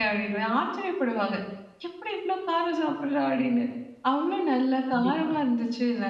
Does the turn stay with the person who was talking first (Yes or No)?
Yes